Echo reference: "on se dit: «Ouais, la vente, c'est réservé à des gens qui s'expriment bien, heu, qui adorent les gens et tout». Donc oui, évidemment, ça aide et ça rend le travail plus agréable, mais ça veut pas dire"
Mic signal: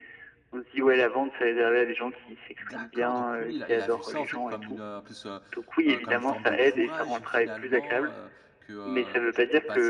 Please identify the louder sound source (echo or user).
echo